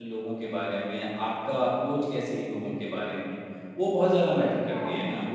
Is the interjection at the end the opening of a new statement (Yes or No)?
Yes